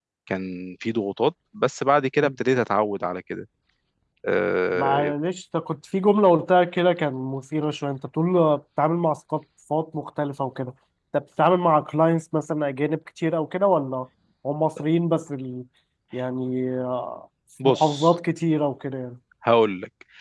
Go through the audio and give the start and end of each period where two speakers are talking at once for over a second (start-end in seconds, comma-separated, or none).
none